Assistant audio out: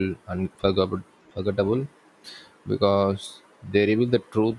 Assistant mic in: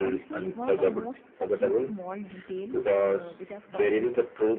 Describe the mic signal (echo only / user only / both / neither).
both